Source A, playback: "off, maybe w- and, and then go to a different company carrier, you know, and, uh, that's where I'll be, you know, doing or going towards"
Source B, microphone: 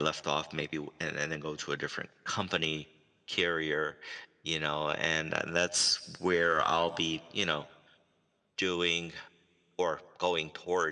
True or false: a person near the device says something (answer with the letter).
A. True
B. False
B